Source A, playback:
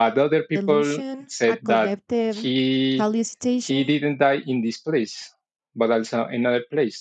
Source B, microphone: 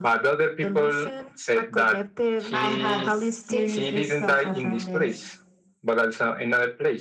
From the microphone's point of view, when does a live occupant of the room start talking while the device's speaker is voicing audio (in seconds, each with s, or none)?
2.6 s